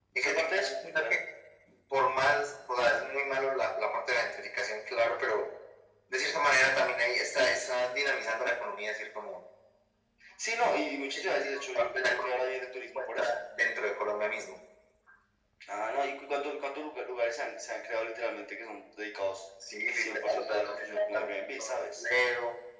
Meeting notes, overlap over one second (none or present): present